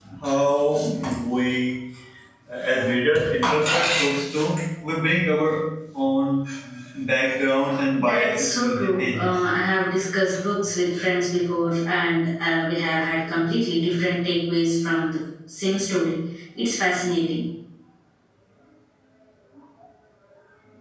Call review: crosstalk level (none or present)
present